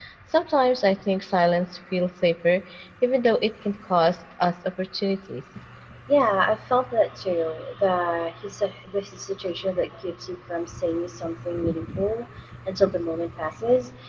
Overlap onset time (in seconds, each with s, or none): none